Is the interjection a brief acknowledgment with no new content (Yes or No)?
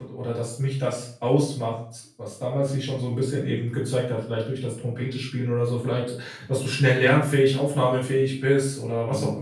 No